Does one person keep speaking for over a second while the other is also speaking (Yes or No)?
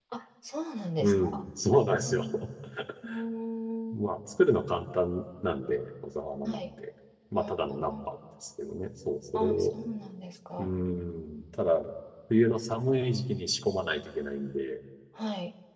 No